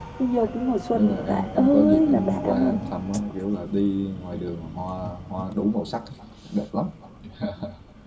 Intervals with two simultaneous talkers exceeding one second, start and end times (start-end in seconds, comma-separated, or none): 0.9-2.8